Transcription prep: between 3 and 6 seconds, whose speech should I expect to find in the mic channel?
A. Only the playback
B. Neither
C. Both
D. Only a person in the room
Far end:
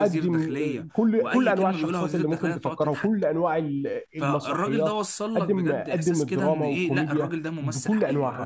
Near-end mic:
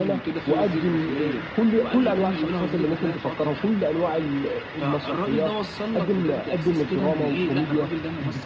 A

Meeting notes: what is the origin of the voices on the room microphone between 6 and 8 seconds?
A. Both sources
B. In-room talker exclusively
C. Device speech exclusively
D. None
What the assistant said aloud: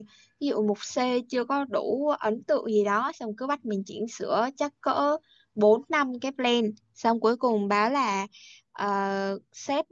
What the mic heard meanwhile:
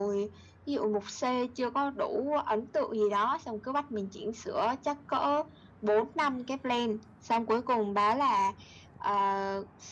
C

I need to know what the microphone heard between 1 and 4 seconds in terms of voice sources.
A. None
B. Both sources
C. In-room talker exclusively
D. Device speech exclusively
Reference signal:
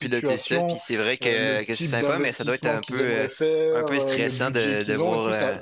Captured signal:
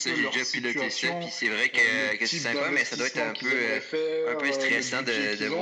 D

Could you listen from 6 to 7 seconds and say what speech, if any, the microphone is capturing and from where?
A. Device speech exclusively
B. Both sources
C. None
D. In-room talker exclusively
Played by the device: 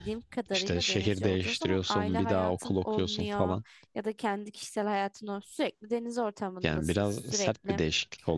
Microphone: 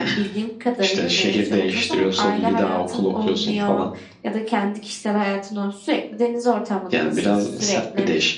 A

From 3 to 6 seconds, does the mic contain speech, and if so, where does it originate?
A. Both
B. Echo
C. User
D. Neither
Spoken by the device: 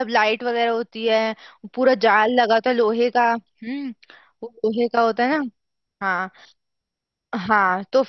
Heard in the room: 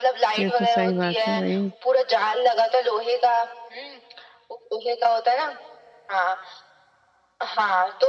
B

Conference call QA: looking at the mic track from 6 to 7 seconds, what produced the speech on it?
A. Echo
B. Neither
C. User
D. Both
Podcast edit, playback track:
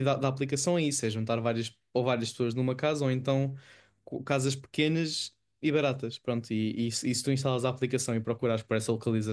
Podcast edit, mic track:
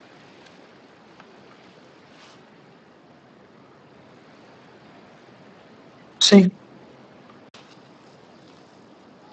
C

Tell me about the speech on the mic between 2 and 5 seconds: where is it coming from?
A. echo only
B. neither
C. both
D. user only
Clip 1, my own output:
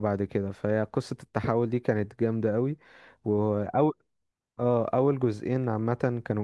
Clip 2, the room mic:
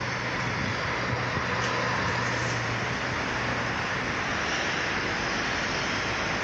B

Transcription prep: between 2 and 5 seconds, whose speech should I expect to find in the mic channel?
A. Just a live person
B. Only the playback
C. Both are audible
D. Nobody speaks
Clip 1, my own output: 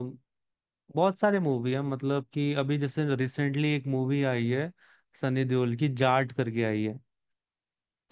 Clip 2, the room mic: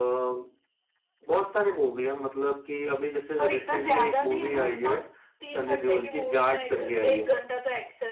C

